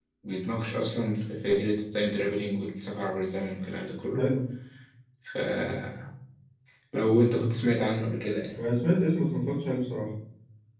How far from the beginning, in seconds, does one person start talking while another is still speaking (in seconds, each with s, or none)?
none